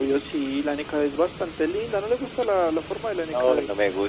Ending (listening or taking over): taking over